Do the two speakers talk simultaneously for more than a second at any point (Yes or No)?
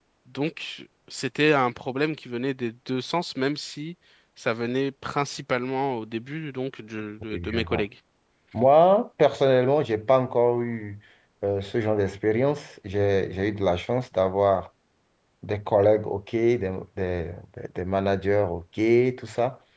No